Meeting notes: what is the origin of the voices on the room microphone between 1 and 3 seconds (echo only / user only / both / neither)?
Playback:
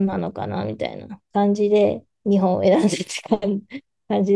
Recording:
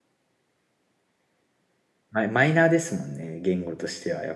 user only